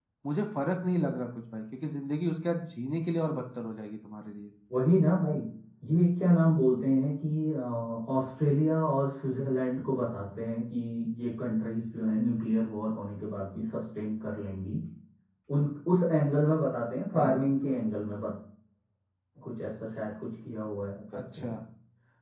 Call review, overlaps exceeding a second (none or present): none